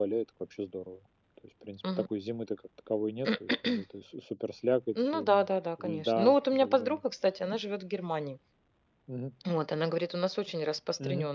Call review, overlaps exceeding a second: present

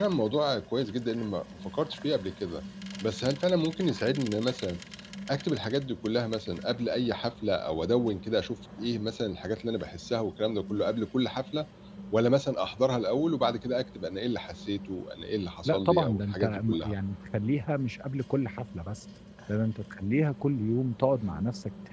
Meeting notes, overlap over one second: present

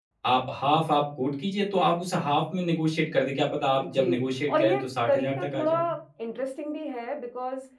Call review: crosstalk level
present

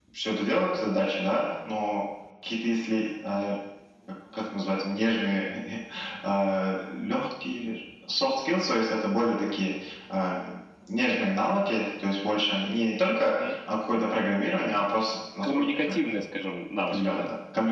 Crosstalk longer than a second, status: none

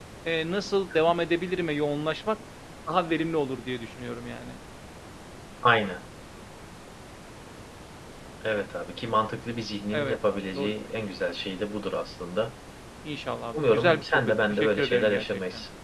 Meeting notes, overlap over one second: present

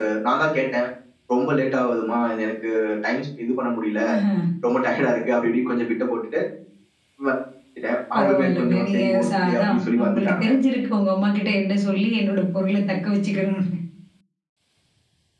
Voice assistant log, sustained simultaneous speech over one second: present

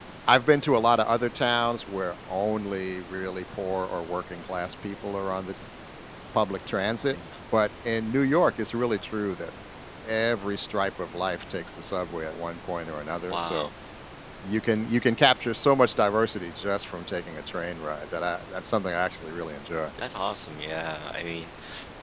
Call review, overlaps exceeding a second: none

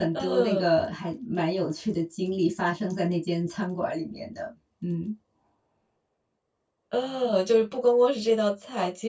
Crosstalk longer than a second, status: none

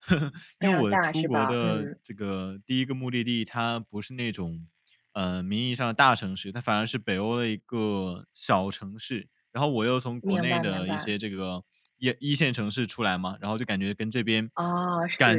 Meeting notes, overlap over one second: present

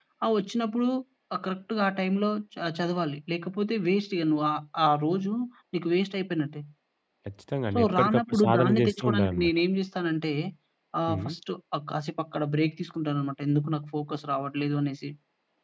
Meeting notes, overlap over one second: present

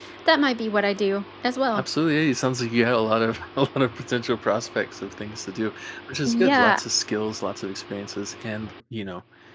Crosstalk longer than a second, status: none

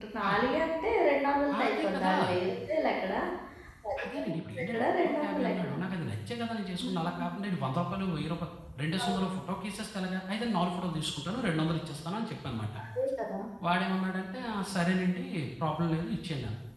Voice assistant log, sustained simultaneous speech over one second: present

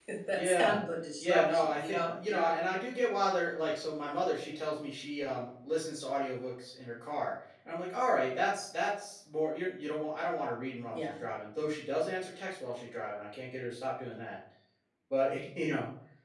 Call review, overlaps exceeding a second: present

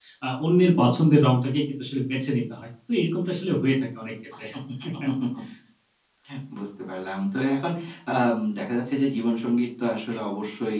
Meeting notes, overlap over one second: none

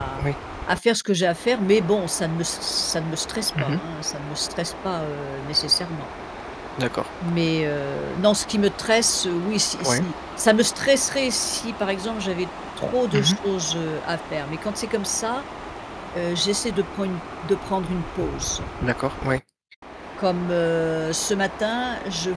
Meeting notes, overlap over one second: none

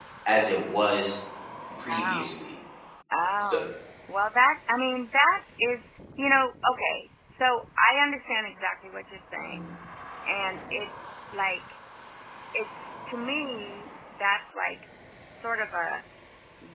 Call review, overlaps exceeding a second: none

